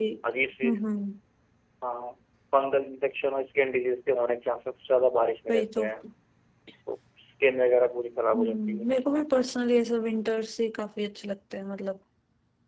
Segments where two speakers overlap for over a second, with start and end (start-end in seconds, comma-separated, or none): none